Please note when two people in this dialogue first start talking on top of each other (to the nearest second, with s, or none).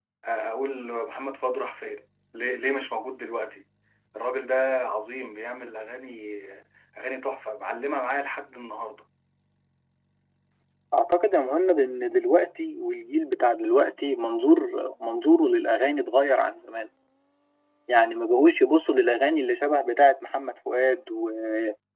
none